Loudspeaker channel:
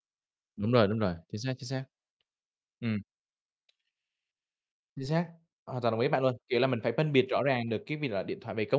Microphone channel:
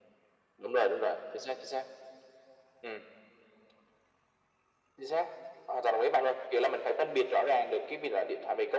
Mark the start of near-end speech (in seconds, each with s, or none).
none